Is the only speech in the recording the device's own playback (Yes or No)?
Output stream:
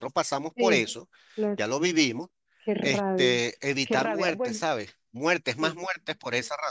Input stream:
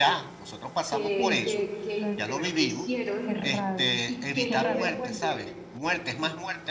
No